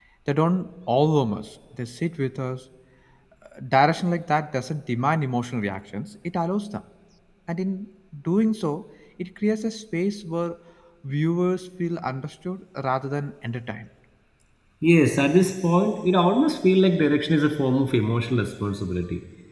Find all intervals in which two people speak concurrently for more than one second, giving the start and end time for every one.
none

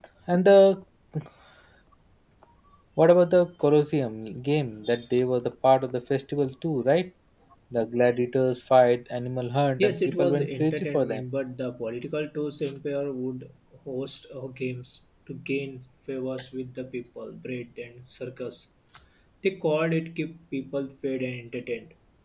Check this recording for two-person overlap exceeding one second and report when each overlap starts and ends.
9.8-11.2

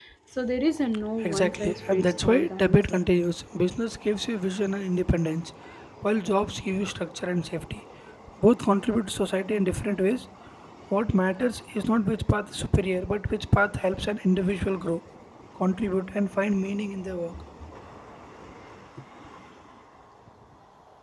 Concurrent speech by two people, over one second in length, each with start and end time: 1.2-3.0

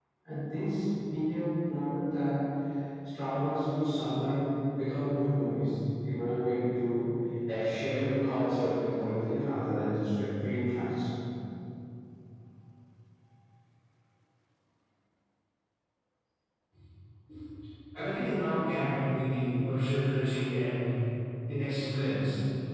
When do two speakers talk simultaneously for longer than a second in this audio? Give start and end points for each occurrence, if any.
none

